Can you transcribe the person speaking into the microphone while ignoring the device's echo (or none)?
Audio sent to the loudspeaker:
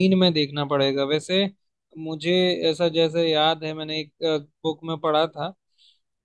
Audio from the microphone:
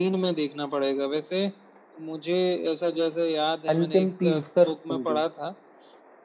अंतिम तीर्थकर कौन थे